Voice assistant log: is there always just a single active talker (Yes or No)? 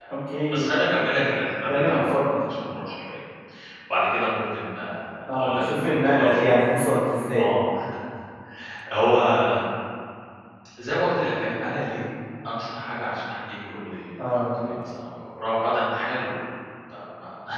No